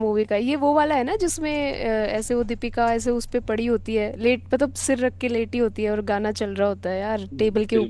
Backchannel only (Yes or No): No